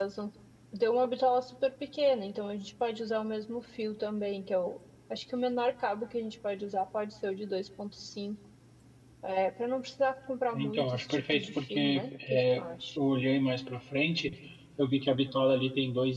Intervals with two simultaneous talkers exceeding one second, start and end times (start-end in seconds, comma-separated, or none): 10.5-13.0